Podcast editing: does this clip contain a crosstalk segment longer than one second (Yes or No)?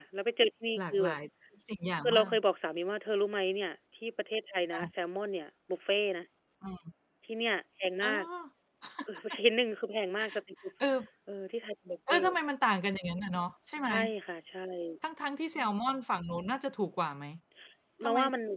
No